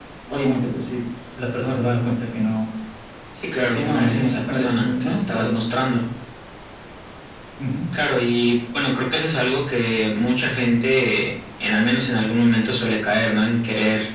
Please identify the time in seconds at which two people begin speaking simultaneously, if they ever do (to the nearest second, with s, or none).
4 s